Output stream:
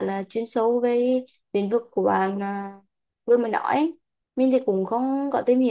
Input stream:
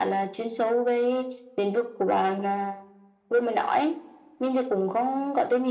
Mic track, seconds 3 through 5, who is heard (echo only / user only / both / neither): echo only